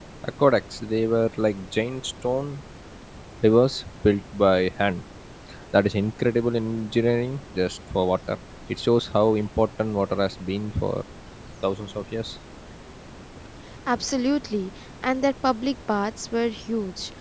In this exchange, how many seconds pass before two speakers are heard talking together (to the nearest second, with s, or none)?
none